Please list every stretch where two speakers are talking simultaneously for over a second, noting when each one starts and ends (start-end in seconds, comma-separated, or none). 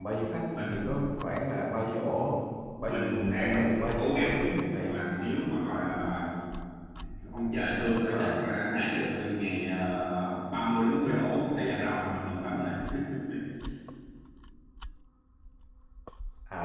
2.8-5.0